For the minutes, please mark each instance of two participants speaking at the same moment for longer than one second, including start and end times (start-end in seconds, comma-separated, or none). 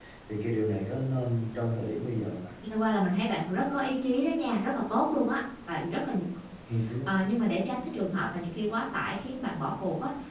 none